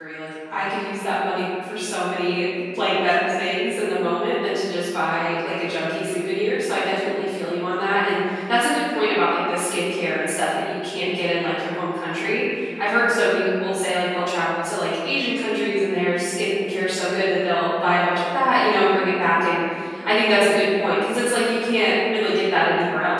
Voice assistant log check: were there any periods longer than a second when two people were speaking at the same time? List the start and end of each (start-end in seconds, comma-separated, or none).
none